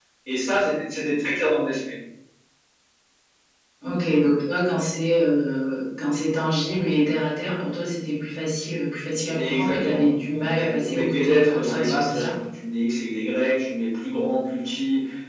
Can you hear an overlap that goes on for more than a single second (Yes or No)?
Yes